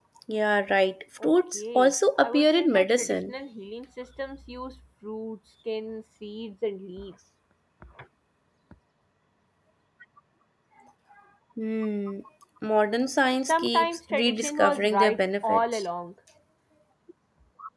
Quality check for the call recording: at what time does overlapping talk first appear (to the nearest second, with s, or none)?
1 s